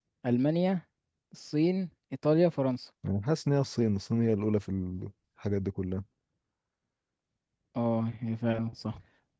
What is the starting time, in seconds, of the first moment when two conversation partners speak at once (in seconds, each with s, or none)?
none